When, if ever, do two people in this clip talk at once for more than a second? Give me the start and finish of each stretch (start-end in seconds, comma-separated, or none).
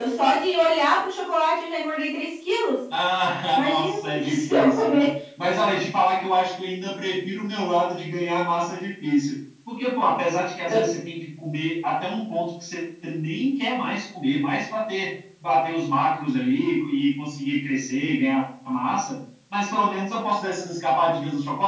3.5-5.1